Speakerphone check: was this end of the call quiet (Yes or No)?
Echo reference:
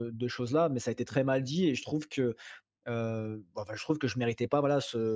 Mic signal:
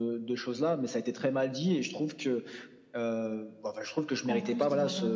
No